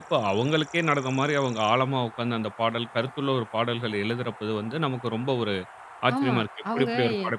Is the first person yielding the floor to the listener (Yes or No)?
Yes